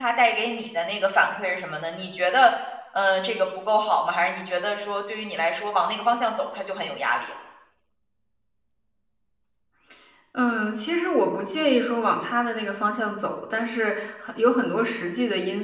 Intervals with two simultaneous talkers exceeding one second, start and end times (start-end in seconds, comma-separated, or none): none